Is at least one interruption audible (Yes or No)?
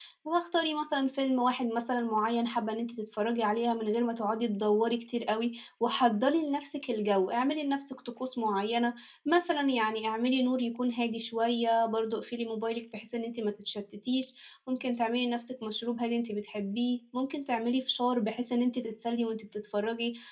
No